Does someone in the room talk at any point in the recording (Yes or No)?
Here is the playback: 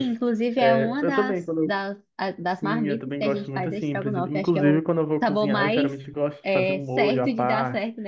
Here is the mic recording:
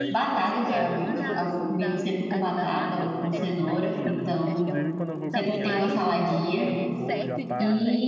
Yes